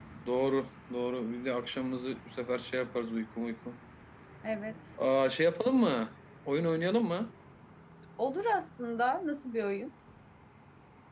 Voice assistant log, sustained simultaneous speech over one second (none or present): none